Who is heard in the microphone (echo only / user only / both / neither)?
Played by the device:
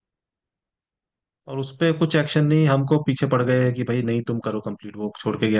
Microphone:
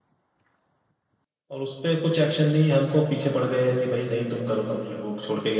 echo only